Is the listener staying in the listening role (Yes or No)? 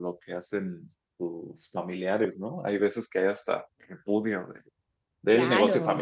Yes